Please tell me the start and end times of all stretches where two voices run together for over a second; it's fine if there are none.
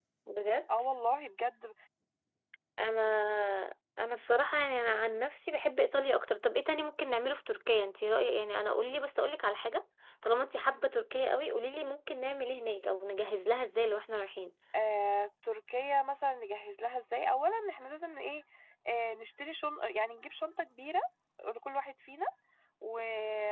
none

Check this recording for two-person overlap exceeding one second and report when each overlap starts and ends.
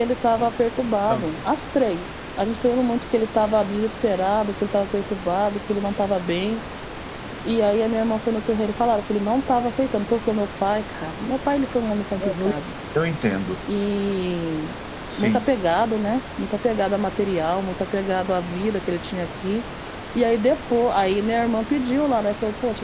none

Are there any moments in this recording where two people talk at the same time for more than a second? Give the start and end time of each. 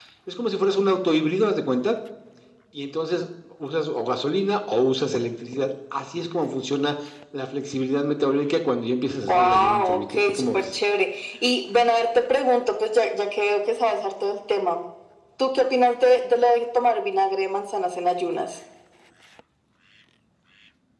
9.3-10.6

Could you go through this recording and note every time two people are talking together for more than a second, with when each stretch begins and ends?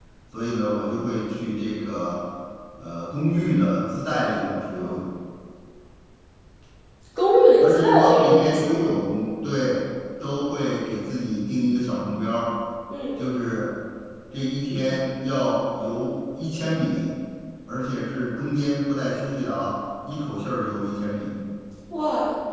7.6-8.8

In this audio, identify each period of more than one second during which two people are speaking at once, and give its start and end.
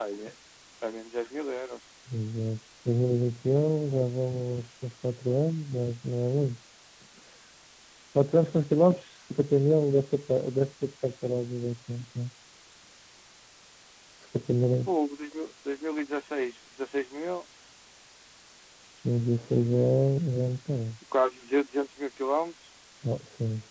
none

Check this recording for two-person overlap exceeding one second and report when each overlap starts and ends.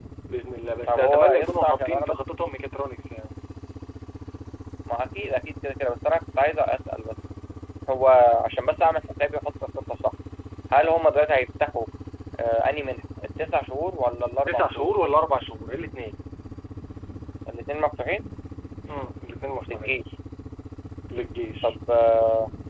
0.9-2.1

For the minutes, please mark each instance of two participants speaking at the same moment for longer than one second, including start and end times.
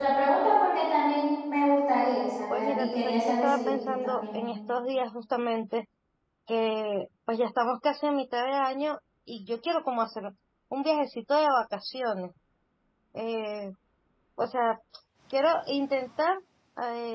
2.5-4.4

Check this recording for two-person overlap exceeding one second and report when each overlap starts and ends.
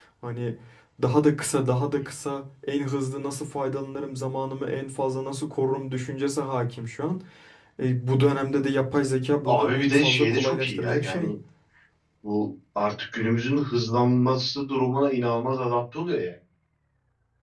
9.4-11.3

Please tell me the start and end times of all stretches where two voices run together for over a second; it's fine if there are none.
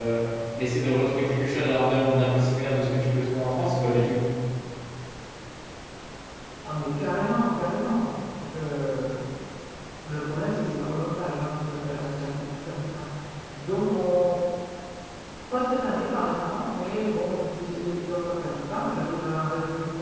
none

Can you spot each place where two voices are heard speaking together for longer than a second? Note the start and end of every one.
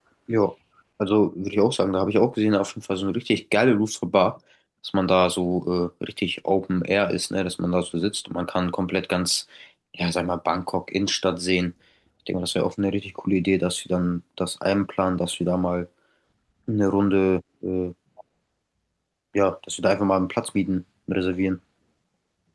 none

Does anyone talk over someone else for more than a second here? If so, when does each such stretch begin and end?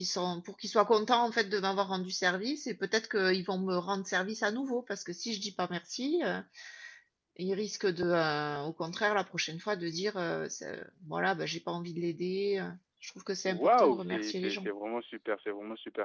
13.5-14.7

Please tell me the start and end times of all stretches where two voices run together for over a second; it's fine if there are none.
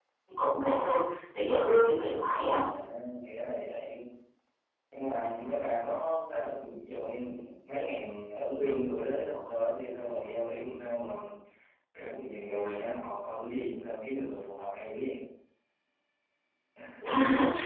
none

